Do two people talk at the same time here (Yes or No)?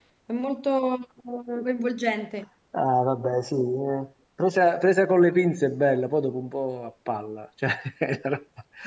No